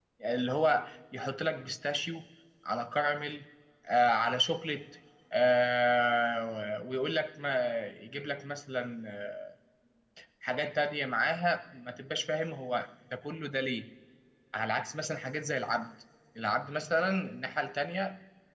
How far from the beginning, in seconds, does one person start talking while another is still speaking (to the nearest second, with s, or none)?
none